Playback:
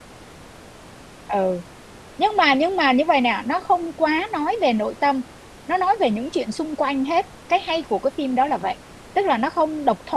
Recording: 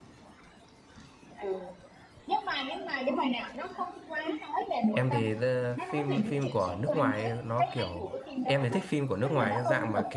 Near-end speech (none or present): present